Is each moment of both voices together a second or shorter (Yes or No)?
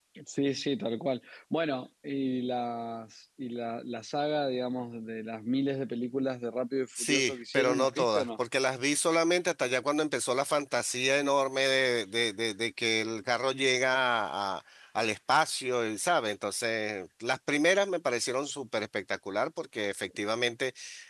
No